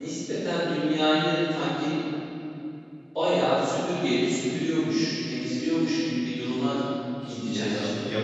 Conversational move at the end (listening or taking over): taking over